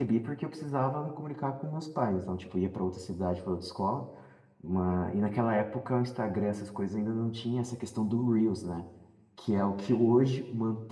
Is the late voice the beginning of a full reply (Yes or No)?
No